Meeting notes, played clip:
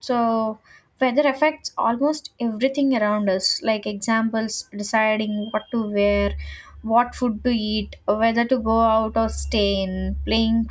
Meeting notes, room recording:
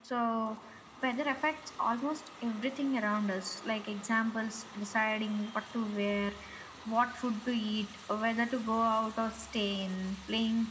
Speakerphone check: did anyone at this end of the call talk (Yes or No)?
No